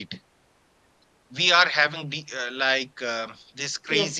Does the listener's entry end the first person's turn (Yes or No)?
No